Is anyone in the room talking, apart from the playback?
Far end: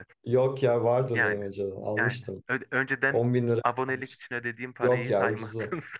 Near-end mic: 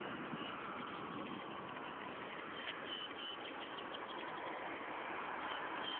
No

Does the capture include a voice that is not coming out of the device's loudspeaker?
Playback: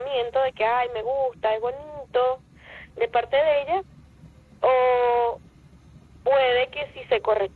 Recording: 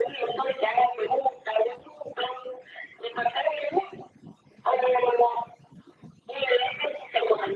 No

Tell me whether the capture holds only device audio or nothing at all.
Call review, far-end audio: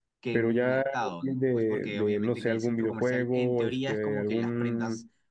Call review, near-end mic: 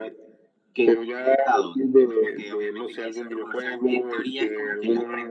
Yes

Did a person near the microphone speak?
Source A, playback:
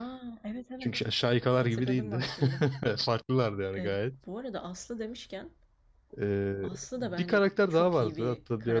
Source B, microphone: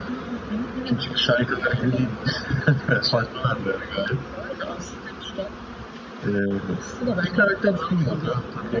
No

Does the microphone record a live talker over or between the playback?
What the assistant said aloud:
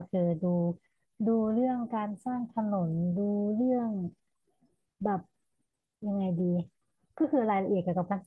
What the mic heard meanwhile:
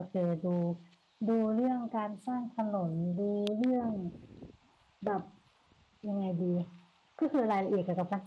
No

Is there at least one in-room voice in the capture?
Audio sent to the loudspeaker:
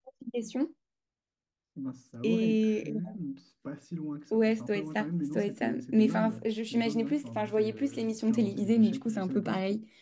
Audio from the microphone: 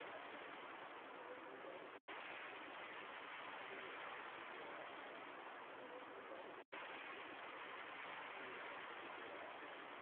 No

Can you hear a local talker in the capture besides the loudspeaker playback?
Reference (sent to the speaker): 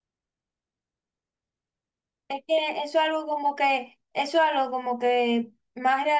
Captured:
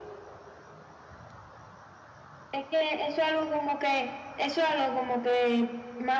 No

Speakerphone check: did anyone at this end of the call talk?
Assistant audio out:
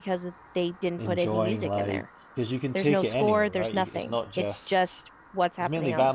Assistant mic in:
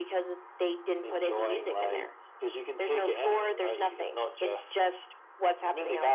No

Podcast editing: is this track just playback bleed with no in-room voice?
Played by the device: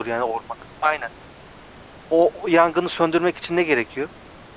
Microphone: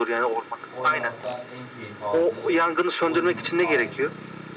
No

